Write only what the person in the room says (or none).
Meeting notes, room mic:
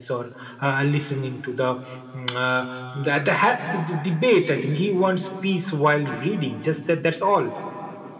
none